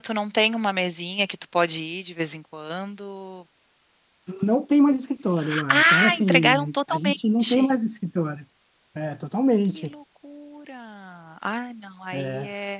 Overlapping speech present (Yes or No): Yes